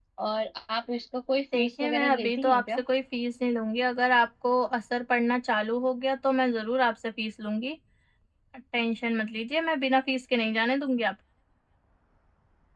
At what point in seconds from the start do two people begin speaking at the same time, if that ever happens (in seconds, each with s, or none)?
1.5 s